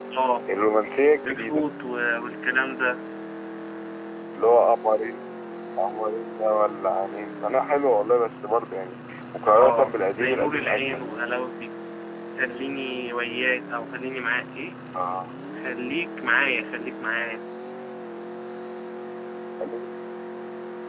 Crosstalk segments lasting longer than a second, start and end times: 9.5-11.0

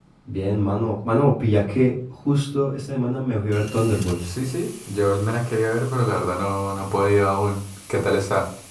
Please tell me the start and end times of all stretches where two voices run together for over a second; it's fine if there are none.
none

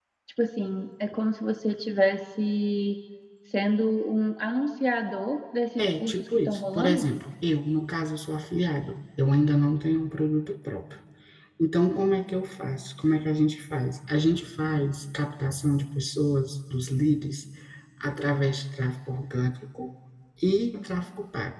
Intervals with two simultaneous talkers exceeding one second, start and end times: 5.8-7.1

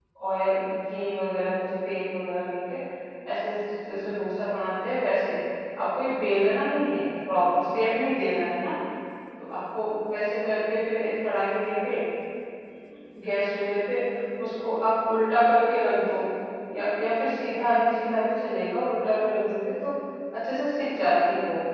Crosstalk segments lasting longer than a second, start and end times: none

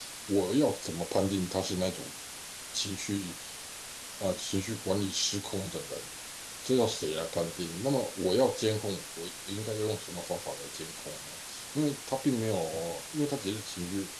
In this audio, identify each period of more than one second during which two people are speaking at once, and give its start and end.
none

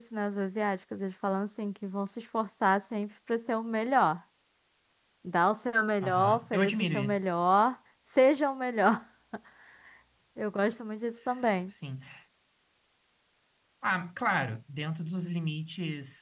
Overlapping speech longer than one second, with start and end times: 6.0-7.2

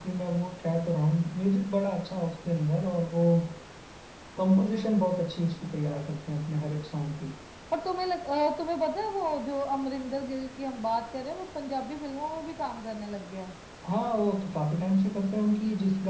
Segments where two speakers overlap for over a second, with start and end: none

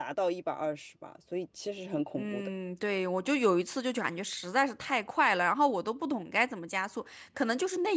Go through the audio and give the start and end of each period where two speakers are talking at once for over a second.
none

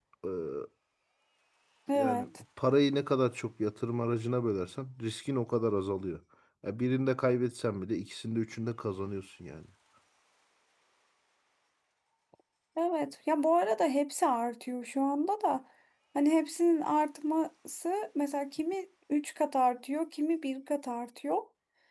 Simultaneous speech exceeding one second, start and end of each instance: none

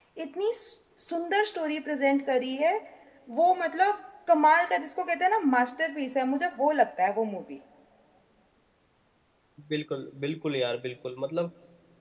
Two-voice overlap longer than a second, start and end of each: none

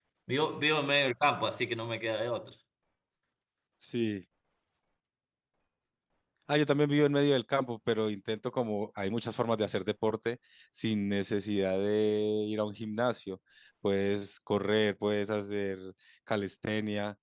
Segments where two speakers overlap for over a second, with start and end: none

